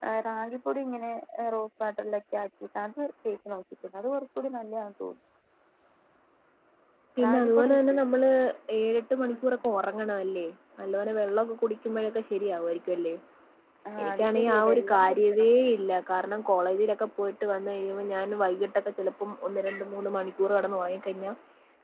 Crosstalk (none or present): present